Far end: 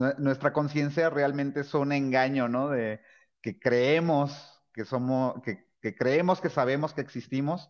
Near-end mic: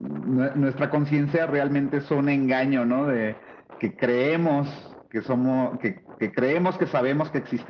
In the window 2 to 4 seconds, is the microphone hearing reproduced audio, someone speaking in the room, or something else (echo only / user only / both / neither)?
echo only